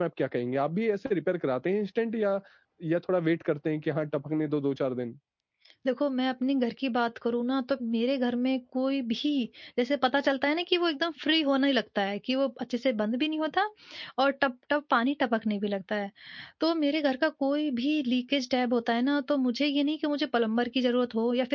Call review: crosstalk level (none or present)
none